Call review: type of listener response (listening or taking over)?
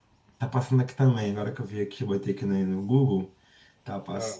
listening